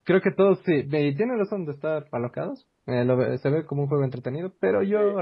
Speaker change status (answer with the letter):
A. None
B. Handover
A